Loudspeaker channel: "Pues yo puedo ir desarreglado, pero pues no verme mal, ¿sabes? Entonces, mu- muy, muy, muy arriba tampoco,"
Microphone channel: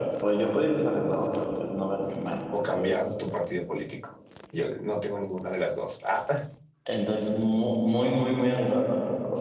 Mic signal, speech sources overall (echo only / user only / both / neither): both